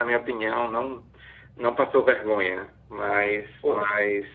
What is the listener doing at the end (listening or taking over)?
listening